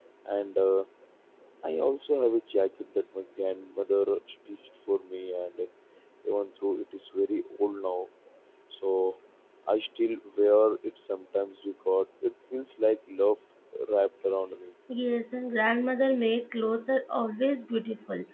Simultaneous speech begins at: none

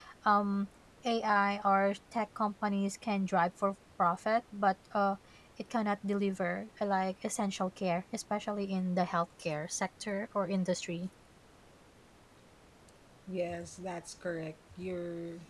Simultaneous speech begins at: none

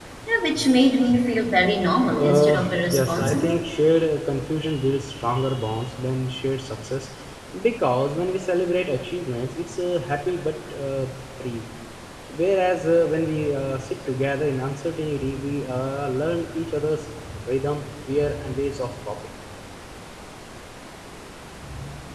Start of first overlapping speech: 2 s

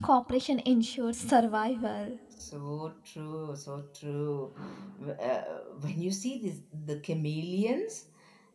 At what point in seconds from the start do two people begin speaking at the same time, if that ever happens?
none

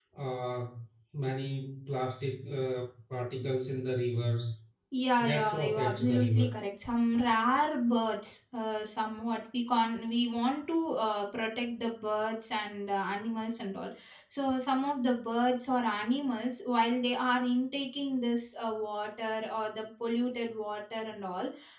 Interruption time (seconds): 5 s

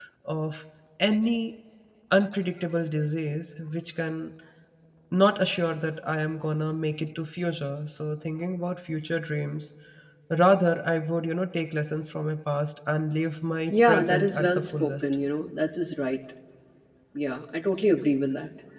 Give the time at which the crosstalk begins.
14 s

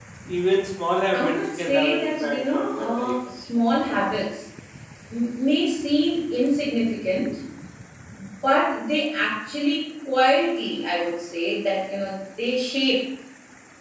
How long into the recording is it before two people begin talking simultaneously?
1 s

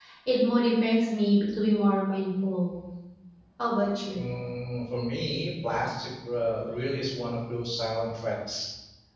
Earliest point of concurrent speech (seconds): none

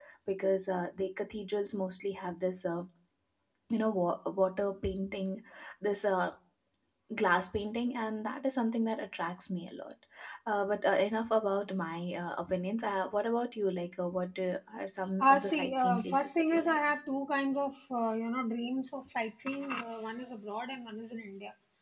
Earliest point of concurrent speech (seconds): 15 s

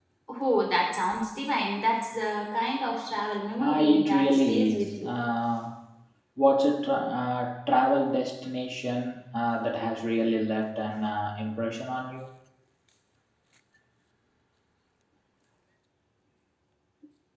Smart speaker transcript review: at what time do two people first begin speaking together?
4 s

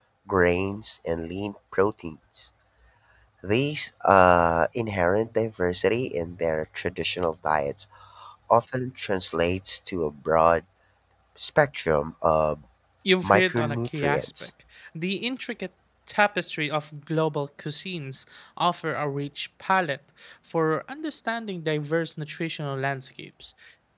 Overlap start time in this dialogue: 13 s

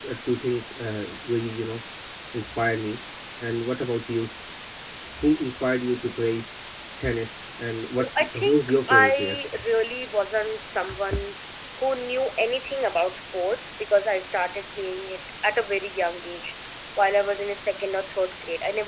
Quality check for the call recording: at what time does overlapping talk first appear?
8 s

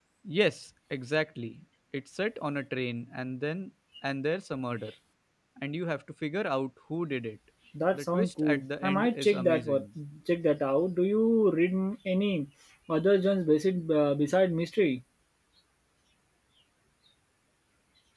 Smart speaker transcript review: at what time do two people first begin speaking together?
8 s

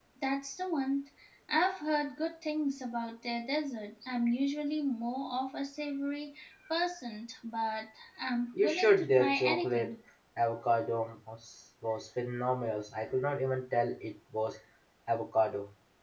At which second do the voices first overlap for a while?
9 s

